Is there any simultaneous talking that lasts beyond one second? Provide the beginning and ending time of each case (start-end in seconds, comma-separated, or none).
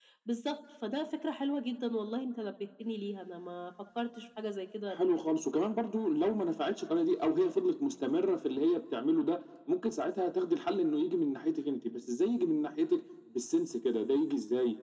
none